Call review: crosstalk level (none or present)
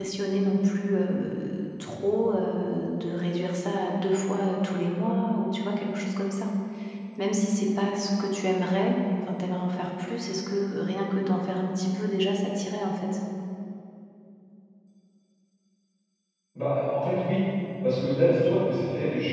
none